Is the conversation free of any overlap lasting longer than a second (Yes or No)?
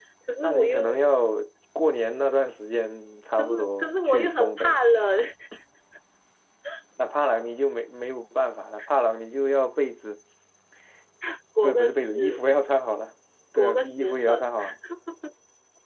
No